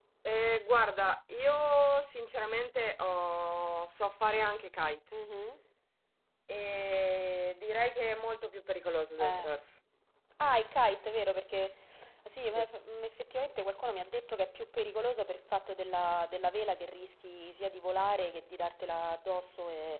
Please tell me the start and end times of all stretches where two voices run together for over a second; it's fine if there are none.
none

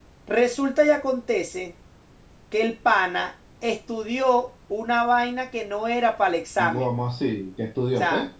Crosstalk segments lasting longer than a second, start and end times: none

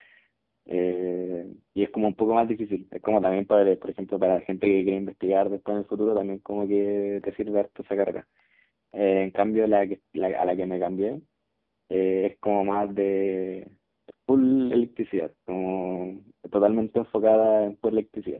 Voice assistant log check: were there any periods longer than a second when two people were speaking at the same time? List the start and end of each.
none

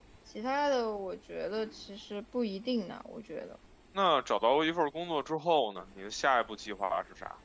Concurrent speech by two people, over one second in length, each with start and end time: none

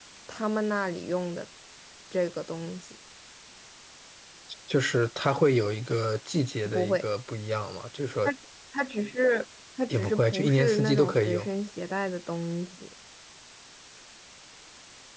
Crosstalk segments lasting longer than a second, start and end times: 9.9-11.5

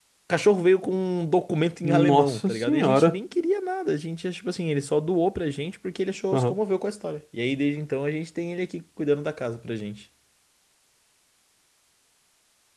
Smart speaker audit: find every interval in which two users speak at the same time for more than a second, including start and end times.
1.8-3.2

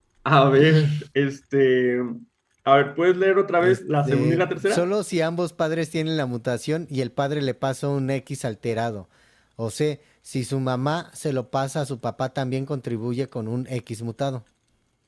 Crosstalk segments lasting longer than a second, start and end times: 3.6-4.9

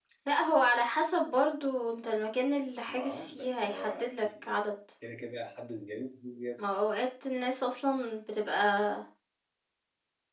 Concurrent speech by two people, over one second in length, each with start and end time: 2.9-4.5

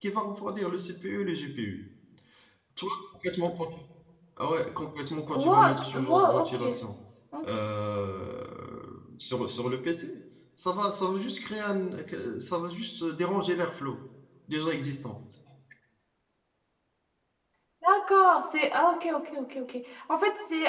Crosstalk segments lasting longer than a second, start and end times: 5.3-6.6

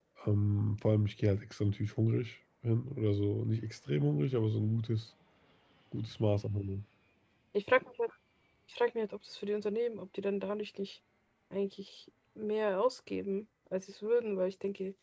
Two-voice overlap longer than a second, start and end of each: none

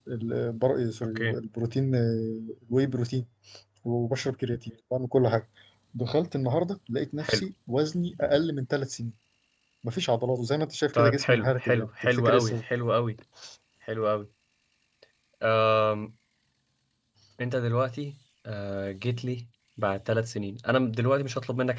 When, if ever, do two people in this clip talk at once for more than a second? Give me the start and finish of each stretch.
10.9-12.6

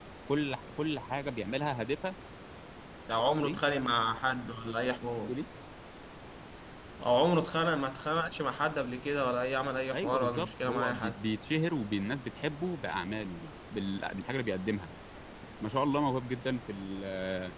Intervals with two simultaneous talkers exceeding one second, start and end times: 9.9-11.2

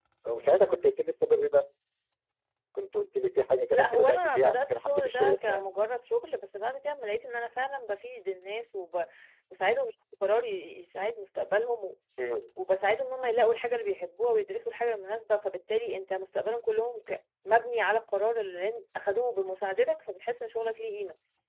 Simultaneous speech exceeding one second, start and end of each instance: 3.7-5.6

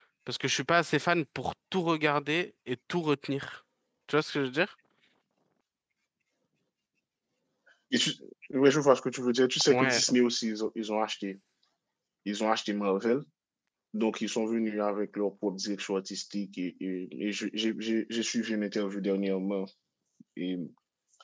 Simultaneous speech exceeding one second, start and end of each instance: none

